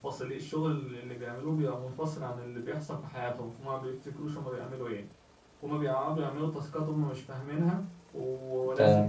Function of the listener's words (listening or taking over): listening